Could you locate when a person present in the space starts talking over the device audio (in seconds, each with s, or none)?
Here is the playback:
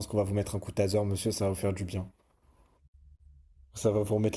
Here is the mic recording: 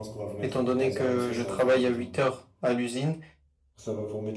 0.4 s